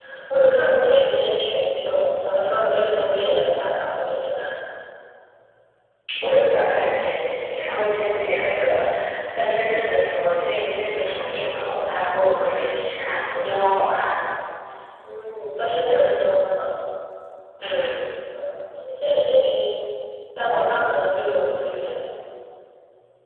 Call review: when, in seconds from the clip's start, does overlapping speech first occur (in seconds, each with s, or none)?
none